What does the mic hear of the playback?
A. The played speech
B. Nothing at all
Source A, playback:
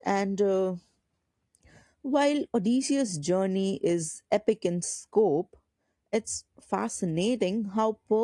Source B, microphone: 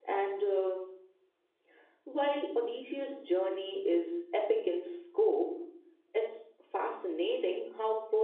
A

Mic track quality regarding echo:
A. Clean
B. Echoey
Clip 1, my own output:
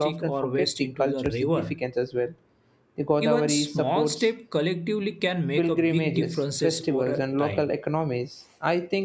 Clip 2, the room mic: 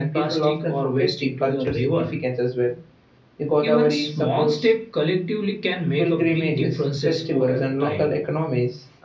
B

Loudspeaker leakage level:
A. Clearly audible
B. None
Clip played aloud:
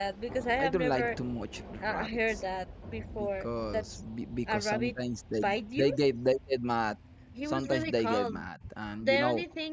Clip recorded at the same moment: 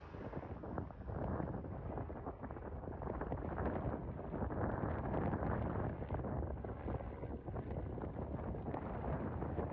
B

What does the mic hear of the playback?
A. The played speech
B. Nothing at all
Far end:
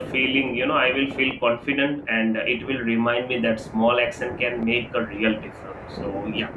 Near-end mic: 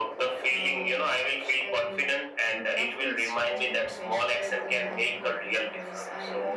A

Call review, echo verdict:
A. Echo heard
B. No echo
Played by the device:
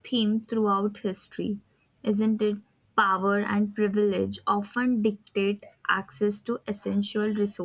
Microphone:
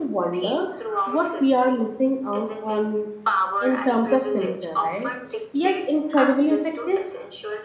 A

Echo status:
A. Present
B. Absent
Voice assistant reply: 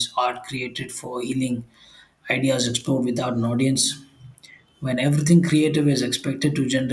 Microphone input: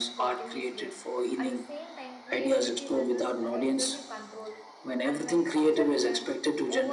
A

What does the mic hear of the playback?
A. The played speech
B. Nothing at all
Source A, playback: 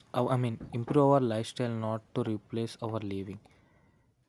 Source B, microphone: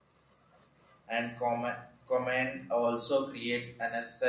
B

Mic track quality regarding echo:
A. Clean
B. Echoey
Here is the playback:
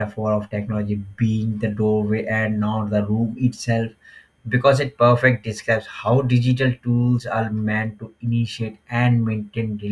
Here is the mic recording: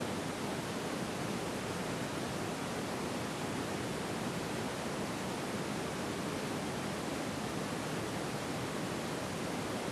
A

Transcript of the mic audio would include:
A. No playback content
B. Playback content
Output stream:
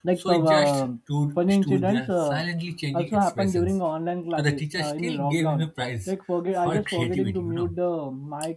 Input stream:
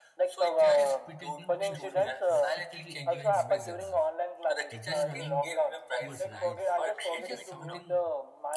B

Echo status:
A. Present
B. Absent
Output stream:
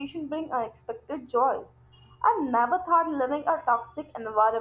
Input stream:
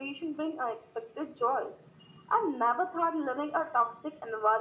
A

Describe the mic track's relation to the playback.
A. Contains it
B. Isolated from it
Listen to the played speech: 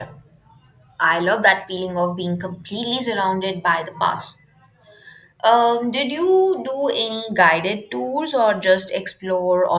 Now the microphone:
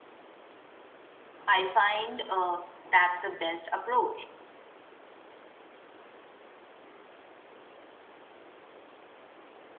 B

